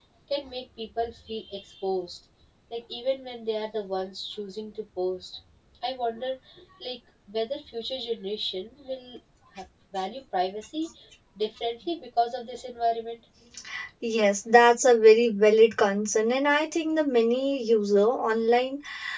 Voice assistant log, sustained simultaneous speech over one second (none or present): none